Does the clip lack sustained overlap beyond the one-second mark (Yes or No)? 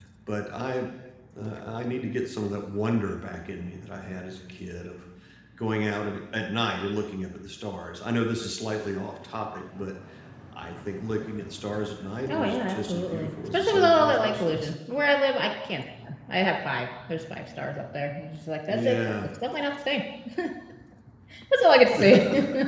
No